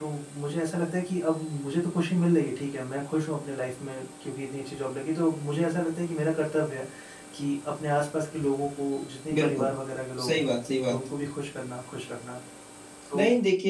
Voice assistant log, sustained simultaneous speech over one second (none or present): none